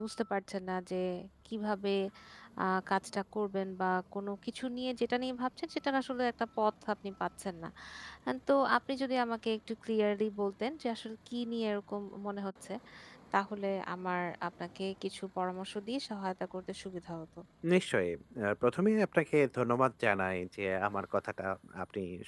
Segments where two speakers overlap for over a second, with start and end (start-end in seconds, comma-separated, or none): none